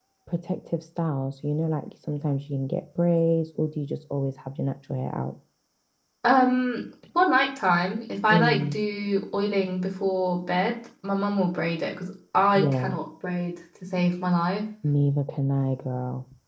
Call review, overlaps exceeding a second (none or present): none